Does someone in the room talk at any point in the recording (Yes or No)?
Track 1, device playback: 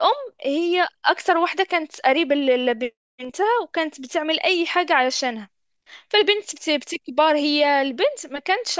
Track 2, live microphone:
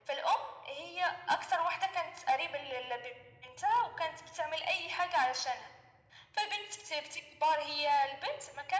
No